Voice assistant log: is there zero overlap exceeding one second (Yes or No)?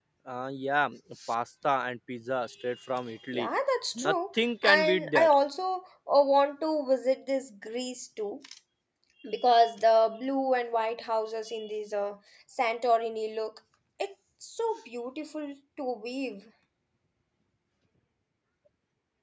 No